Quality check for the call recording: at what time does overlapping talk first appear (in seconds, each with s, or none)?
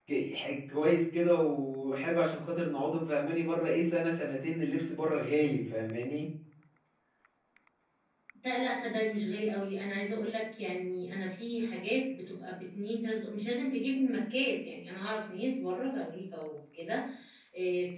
none